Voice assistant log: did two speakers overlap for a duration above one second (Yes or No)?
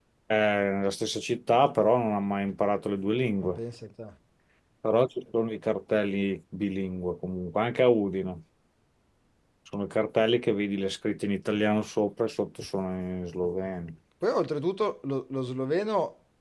No